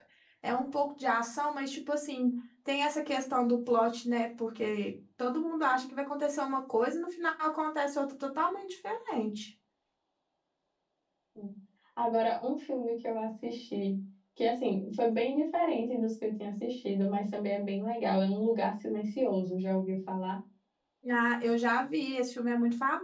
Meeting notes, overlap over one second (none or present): none